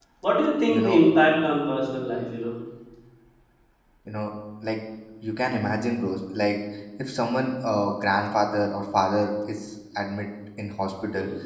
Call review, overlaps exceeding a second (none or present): none